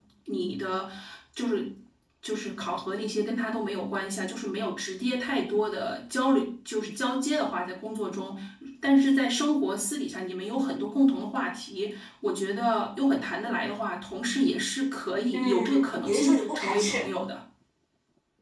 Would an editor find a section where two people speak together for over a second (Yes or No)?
Yes